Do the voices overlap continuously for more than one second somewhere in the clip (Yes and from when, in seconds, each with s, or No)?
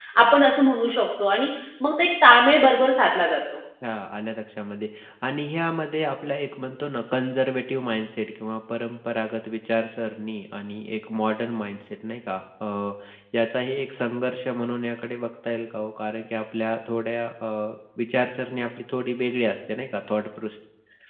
No